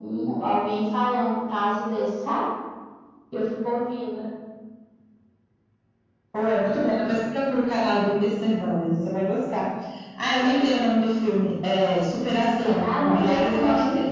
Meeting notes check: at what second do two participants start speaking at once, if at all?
12 s

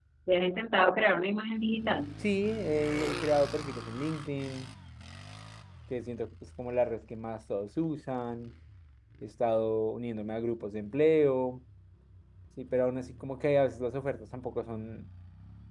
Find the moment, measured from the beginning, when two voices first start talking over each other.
none

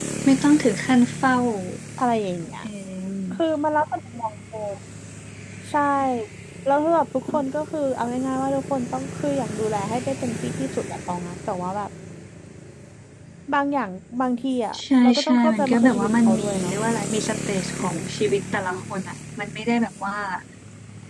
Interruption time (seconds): 15 s

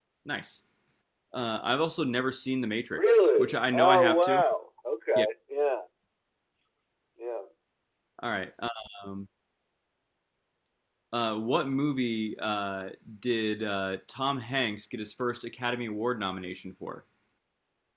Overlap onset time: 3 s

